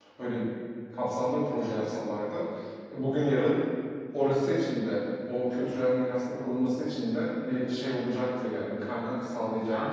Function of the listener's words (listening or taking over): taking over